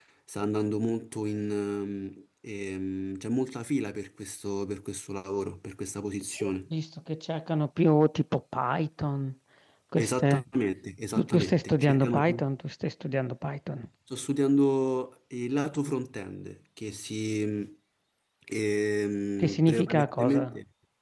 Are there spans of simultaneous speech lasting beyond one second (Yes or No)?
Yes